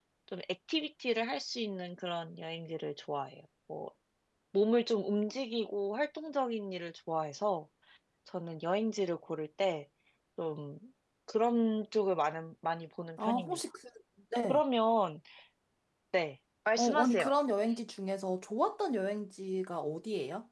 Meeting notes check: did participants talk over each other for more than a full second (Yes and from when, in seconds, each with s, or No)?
No